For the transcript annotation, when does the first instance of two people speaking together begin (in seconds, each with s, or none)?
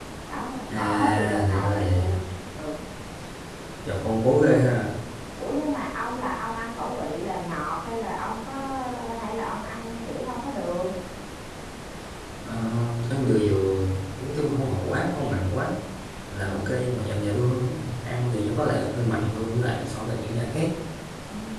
0.7 s